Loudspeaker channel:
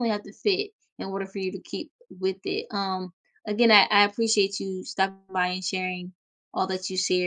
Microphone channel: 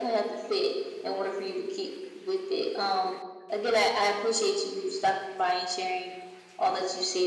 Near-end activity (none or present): none